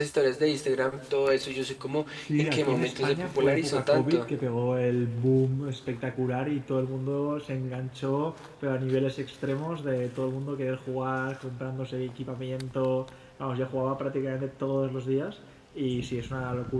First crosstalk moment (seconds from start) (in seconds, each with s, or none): 2.2 s